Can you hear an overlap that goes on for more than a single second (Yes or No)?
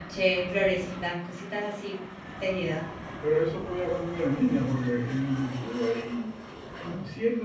No